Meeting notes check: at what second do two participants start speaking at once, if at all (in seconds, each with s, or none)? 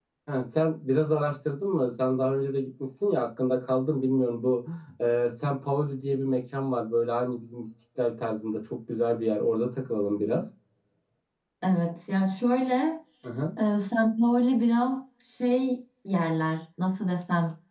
none